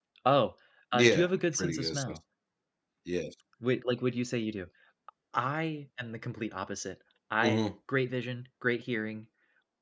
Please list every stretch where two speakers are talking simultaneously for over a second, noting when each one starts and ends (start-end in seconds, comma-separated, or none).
0.9-2.2